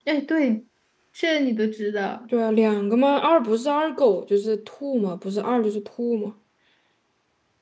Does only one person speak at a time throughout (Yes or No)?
Yes